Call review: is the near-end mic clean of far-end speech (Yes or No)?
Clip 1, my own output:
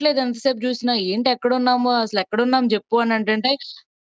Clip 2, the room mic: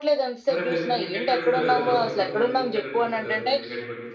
No